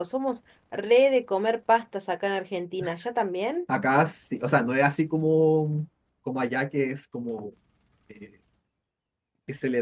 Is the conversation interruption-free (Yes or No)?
Yes